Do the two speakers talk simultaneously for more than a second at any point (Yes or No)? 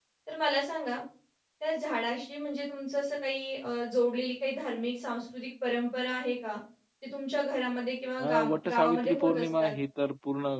Yes